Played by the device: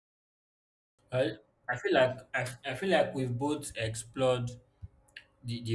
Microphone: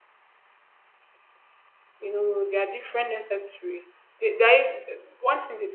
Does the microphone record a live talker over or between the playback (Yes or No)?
Yes